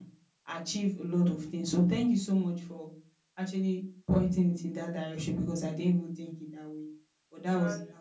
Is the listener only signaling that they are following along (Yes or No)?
Yes